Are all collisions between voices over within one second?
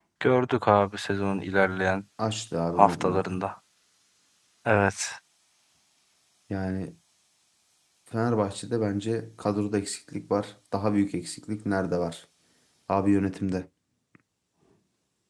Yes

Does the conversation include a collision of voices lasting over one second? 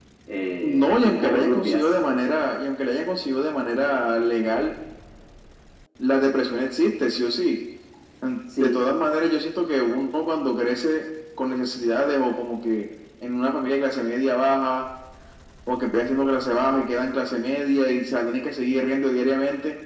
Yes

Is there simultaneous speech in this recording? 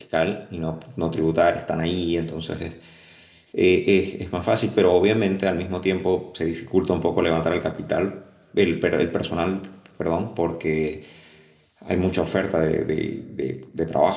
No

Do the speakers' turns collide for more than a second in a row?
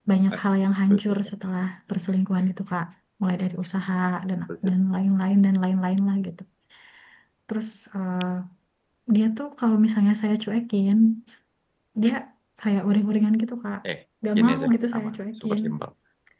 Yes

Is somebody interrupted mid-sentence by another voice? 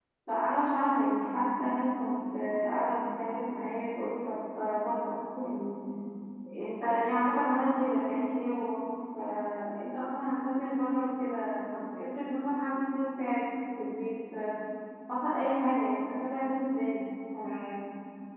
No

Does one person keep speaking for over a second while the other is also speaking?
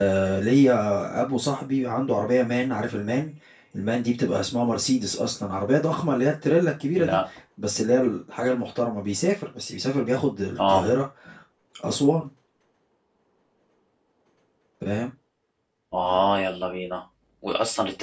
No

